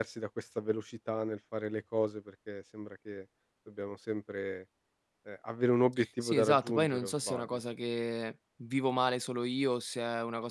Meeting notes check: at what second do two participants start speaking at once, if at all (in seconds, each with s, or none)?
6.2 s